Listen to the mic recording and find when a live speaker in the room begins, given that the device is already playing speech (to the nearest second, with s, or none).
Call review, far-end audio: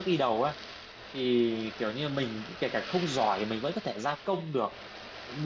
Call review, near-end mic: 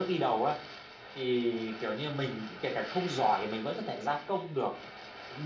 none